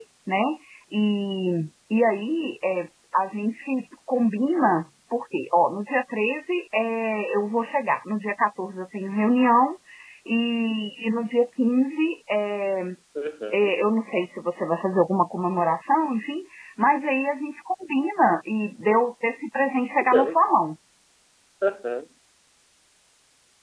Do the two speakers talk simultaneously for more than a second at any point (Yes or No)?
No